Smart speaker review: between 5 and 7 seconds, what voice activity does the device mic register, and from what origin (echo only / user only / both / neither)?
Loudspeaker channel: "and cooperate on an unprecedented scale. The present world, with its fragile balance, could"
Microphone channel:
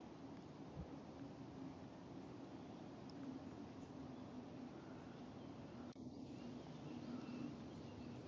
neither